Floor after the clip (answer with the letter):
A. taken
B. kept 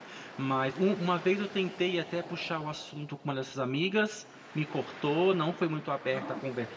B